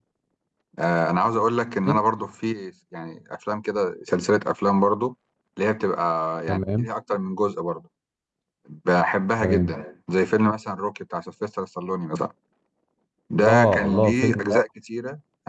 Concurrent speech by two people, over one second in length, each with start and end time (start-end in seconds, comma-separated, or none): 13.3-14.6